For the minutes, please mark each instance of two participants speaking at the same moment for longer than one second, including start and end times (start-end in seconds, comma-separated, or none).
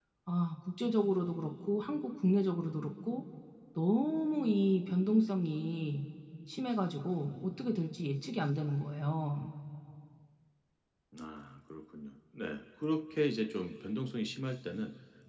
none